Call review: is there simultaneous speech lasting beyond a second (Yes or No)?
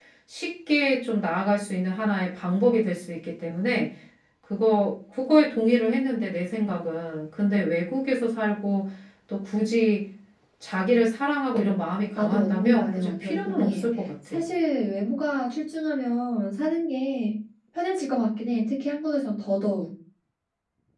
Yes